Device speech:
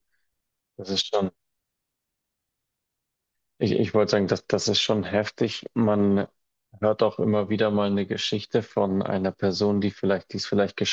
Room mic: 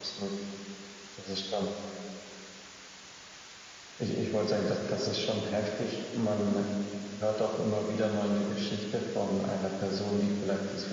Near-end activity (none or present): none